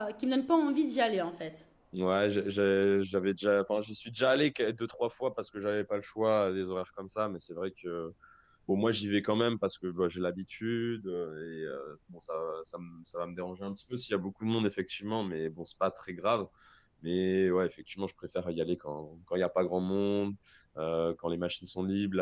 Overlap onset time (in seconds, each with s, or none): none